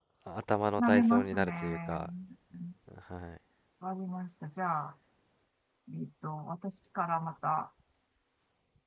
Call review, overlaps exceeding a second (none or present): present